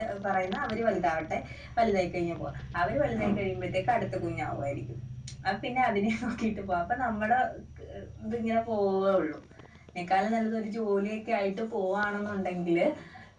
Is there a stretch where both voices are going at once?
No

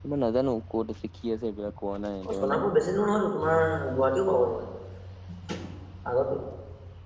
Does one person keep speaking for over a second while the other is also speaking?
No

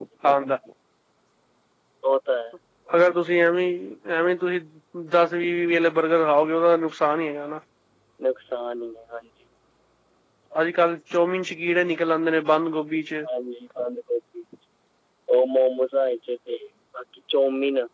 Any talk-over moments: No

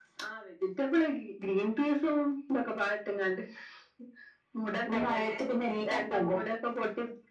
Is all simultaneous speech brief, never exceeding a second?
Yes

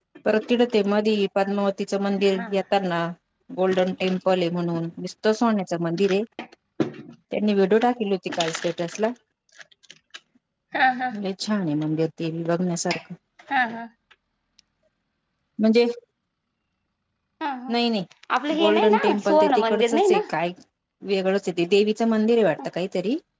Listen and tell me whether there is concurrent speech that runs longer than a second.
Yes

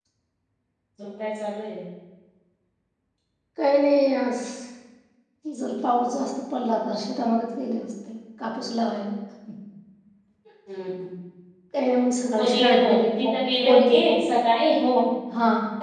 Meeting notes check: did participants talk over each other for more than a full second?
Yes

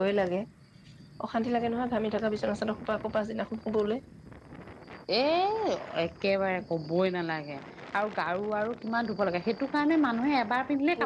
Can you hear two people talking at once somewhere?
No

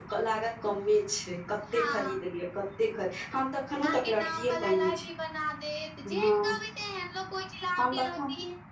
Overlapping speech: Yes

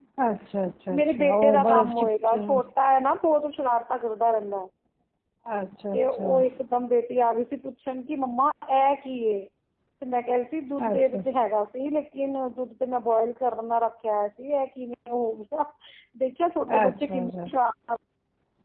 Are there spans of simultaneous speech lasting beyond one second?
Yes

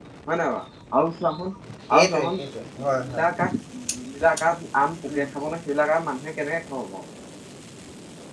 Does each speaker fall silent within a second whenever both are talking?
Yes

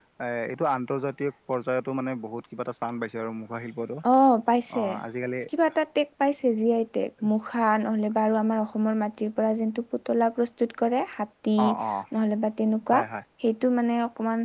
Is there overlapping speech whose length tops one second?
No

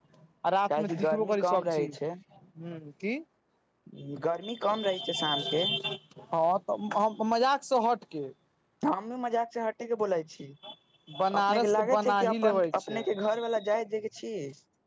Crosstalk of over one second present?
Yes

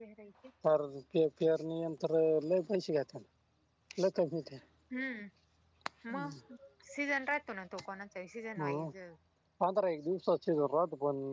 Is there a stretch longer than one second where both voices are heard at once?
No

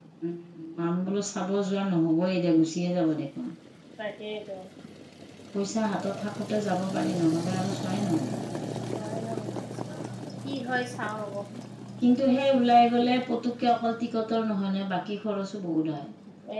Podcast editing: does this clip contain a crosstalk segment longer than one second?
No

